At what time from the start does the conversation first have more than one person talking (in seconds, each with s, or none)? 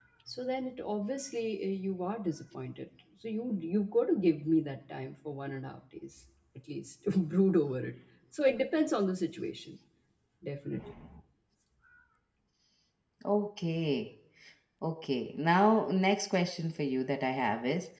none